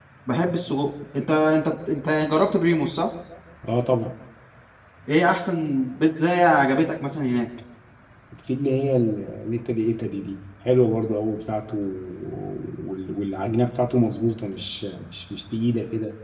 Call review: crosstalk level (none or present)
none